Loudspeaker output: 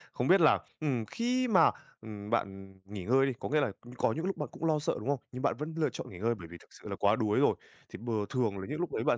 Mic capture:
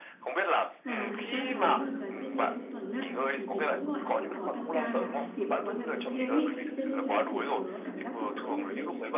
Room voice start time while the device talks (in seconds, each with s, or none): 0.8 s